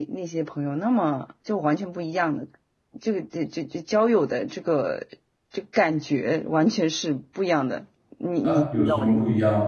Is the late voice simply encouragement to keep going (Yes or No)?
No